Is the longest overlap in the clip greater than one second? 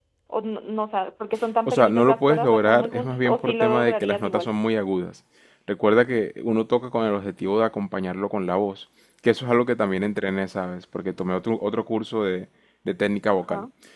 Yes, from 1.7 s

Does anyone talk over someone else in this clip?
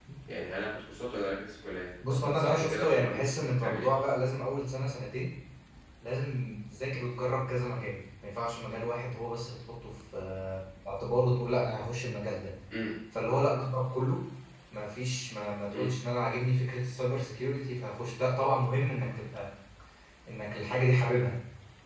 Yes, from 2.0 s

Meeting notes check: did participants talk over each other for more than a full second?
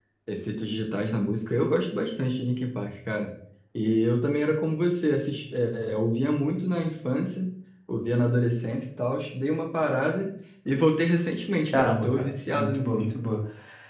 Yes, from 11.7 s

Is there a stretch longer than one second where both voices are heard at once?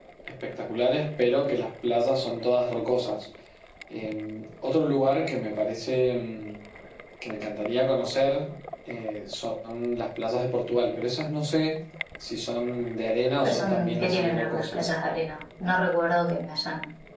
Yes, from 13.4 s

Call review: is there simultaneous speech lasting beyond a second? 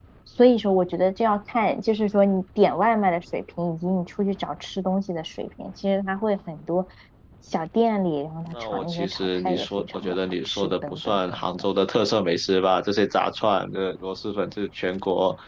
Yes, from 8.5 s

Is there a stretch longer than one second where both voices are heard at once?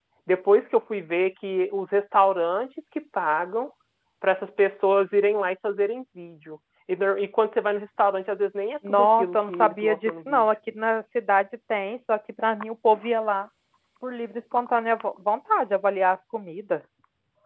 Yes, from 8.8 s

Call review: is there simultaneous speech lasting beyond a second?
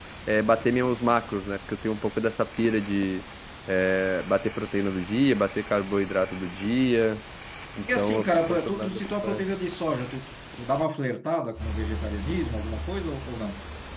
Yes, from 7.8 s

